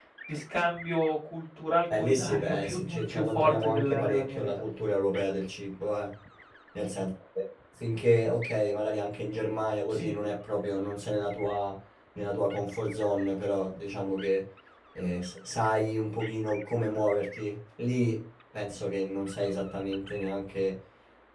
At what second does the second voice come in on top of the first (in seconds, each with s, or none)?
1.9 s